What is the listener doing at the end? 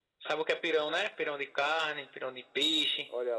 taking over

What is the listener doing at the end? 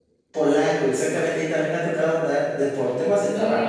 listening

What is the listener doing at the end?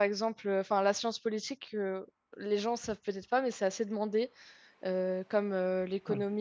listening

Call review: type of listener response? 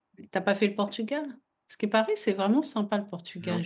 taking over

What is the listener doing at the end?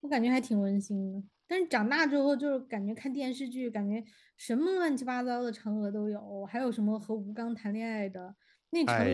listening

